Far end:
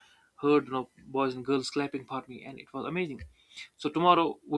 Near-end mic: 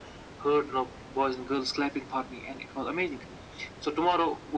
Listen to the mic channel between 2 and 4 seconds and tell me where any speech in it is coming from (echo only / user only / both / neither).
echo only